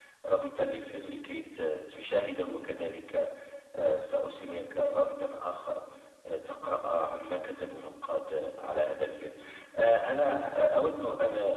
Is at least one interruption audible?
No

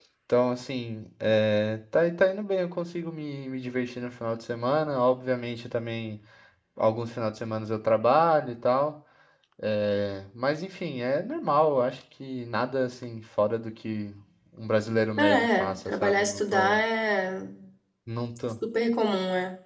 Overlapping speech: Yes, from 15.2 s

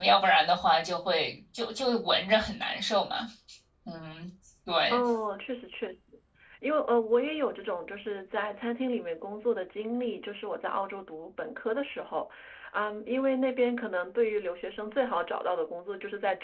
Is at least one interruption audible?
No

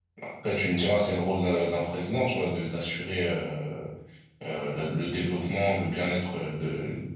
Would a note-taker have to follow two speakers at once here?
No

